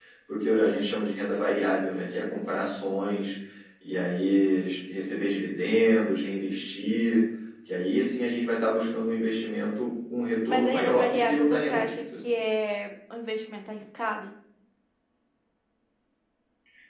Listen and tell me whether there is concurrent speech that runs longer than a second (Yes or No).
Yes